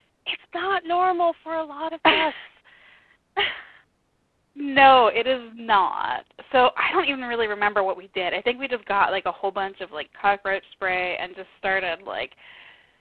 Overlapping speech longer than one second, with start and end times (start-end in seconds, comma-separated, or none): none